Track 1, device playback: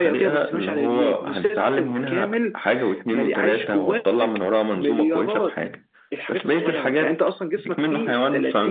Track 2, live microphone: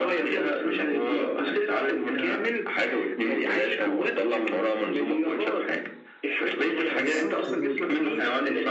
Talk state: both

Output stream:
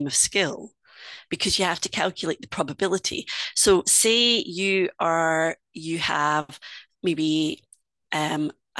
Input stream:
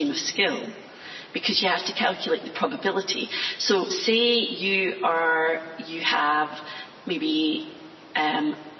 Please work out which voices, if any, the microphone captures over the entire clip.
echo only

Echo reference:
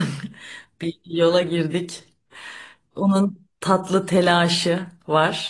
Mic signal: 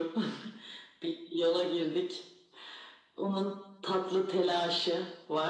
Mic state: echo only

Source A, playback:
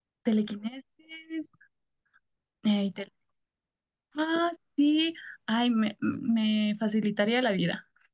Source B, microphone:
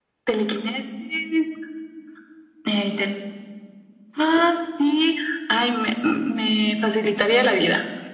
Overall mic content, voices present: echo only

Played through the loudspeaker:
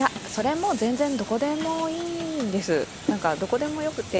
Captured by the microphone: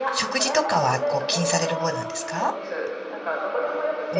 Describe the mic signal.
both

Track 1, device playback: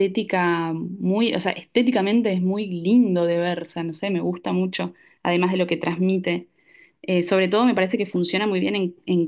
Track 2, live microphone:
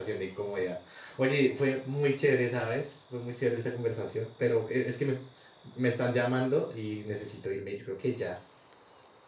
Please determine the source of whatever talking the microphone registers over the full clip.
user only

